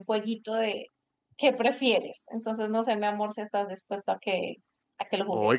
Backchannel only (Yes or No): No